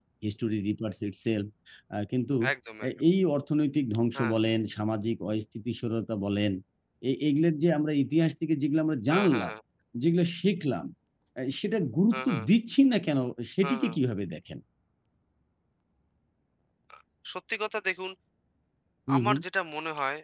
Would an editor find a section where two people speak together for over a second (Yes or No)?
No